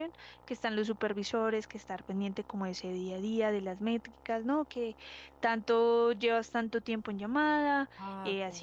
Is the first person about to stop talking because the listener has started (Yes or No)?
No